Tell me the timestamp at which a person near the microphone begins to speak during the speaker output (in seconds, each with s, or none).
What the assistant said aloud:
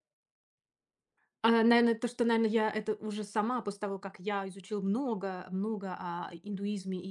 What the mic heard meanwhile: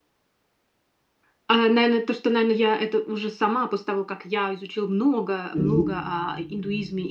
5.5 s